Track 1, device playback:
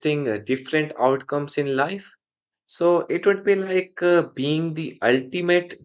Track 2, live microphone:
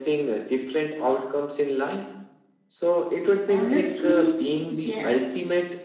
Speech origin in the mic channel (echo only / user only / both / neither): both